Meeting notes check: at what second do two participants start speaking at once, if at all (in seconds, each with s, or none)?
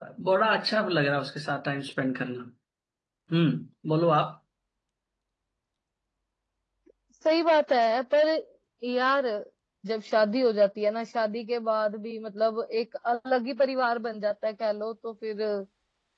none